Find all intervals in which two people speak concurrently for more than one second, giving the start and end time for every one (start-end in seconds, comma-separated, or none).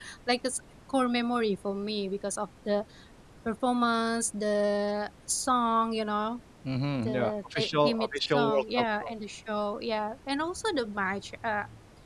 7.0-9.1